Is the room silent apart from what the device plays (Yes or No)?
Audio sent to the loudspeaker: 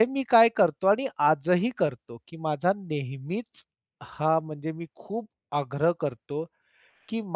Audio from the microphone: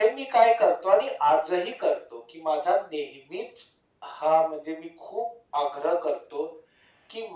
Yes